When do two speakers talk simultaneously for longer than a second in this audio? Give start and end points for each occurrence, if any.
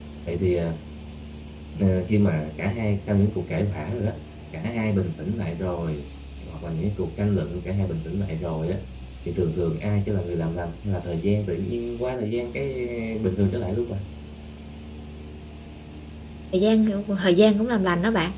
none

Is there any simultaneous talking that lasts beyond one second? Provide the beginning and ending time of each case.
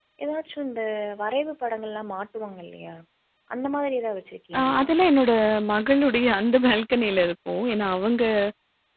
none

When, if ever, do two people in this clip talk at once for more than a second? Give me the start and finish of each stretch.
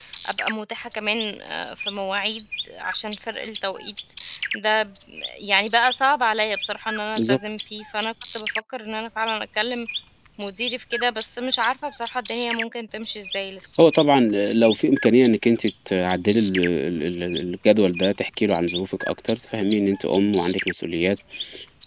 none

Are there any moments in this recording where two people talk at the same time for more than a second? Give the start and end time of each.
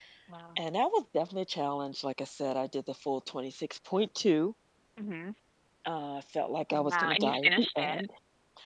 6.7-8.0

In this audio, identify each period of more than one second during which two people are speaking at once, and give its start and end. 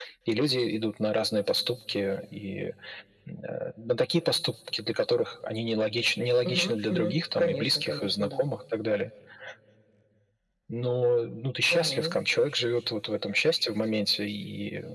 6.4-8.4

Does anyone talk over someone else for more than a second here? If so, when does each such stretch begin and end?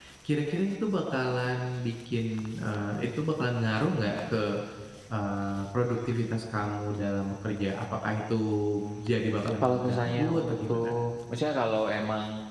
9.6-10.9

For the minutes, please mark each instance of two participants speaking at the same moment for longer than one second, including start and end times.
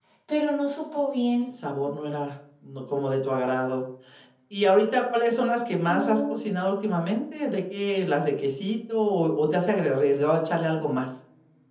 none

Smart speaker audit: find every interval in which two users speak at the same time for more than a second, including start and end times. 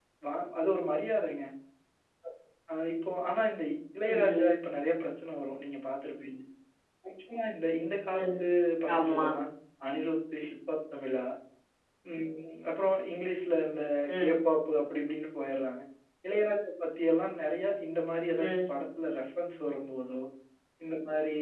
none

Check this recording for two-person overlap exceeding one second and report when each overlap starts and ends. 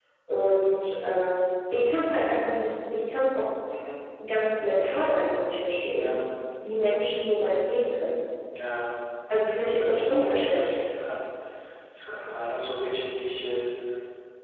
9.6-10.8

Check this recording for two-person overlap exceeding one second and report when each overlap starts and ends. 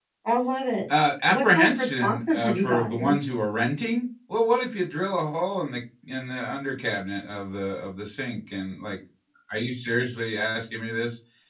1.3-3.2

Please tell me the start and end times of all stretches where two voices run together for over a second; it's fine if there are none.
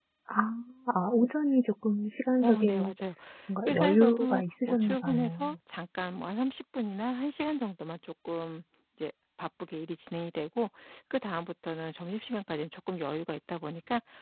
3.7-5.4

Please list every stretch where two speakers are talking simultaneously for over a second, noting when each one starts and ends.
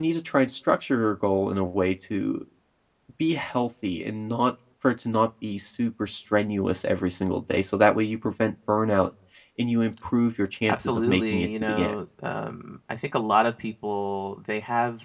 10.7-11.9

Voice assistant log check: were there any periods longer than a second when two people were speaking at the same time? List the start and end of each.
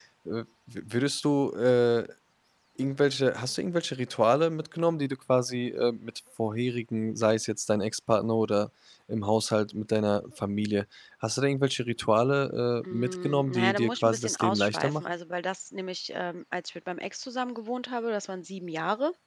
12.9-15.2

